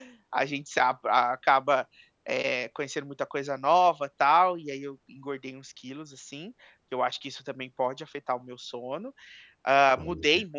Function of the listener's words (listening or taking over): listening